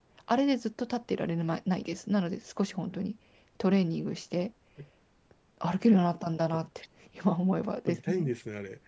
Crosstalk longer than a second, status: none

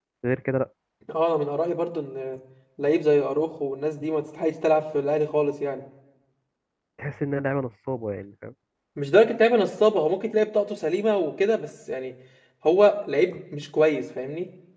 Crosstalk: none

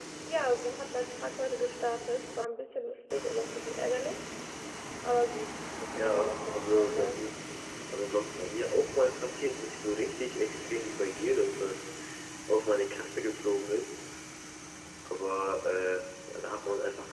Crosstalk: present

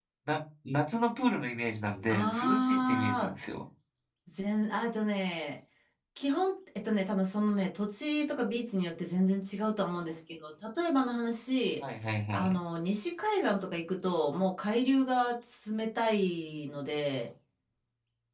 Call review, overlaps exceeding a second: present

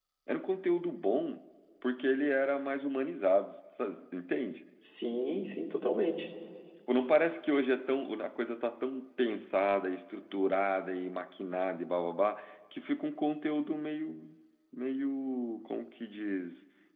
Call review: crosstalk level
none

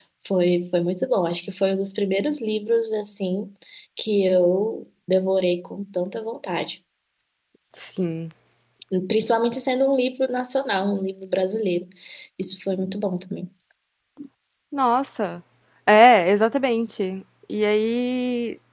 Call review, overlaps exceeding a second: none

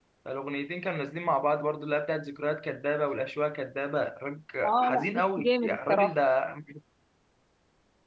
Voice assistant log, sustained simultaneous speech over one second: present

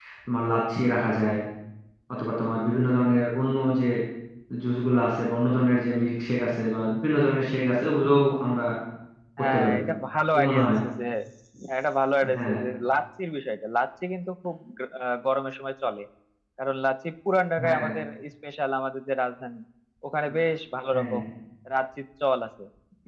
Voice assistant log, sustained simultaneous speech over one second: none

